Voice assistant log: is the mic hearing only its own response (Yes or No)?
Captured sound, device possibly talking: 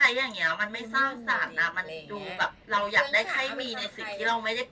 No